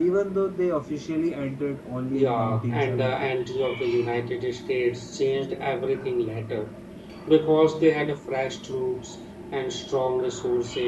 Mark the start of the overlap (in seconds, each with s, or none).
2.1 s